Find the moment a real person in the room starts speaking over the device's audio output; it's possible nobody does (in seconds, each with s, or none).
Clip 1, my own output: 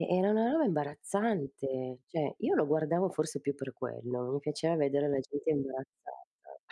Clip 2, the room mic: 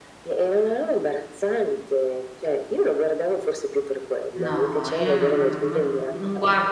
4.3 s